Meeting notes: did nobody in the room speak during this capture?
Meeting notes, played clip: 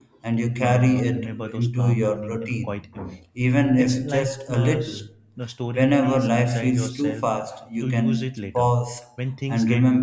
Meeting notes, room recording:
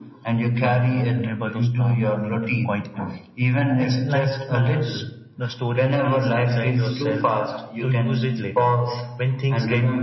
Yes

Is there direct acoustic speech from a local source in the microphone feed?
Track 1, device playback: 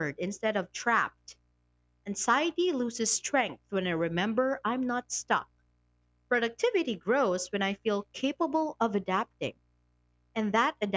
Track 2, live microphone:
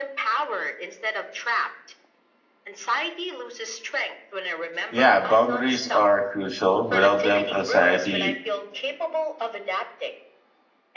Yes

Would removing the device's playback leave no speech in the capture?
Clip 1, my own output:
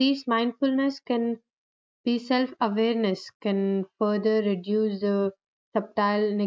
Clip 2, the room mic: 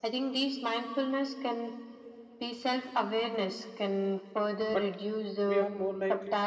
No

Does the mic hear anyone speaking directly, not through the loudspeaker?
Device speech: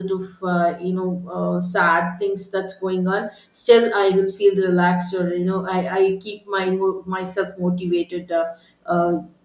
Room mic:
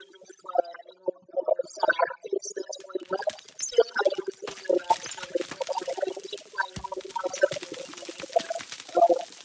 No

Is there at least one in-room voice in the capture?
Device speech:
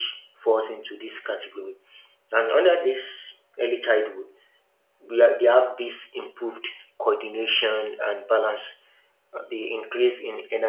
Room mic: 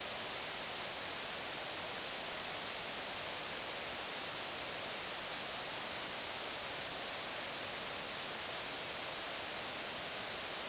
No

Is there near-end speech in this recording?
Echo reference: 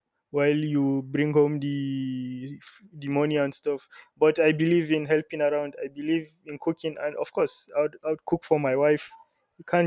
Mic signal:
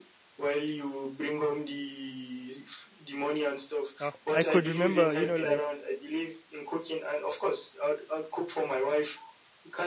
Yes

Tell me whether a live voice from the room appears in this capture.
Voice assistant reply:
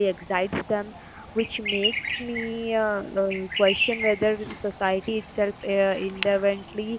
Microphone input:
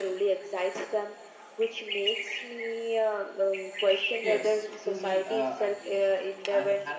Yes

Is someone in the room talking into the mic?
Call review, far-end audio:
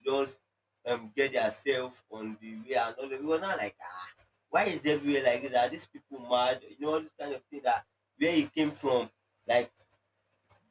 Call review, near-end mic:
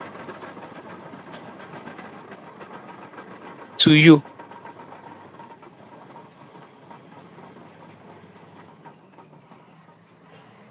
Yes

